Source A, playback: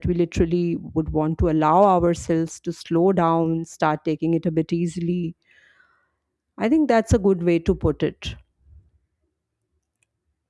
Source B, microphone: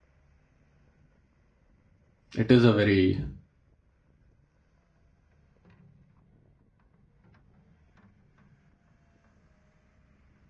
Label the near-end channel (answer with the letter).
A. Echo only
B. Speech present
B